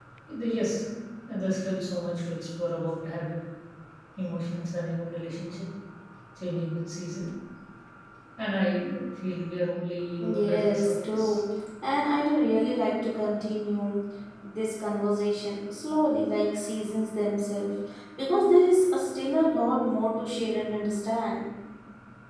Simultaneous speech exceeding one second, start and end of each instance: 10.2-11.4

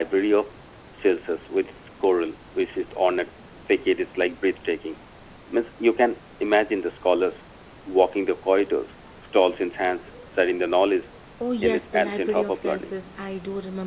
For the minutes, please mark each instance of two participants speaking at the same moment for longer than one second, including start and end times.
11.6-12.9

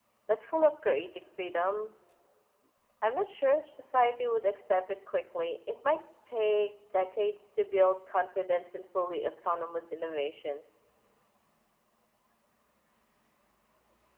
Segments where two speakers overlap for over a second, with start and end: none

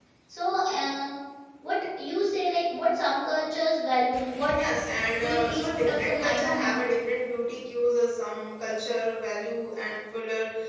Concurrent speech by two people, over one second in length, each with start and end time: 5.2-6.7

